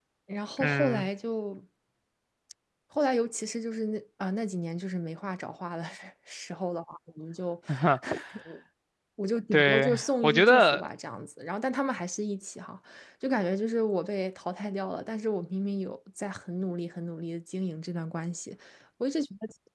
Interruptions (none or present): present